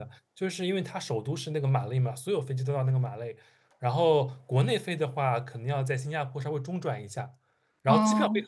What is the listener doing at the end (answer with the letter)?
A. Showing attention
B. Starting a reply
A